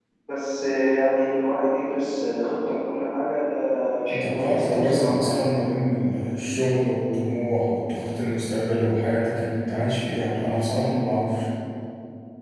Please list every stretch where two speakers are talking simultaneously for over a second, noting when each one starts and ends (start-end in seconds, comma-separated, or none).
4.1-5.4